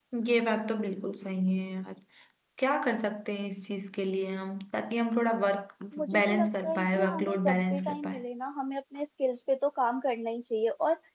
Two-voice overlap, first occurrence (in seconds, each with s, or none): 6.2 s